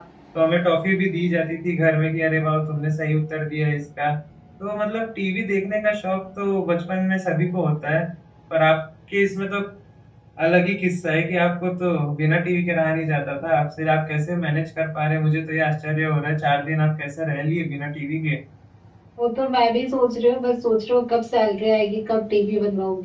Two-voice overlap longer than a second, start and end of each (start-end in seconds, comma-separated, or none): none